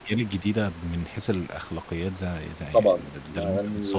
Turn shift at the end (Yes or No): Yes